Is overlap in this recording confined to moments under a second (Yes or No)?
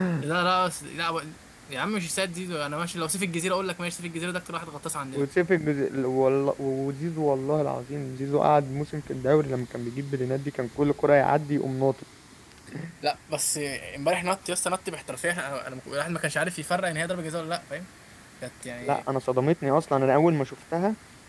Yes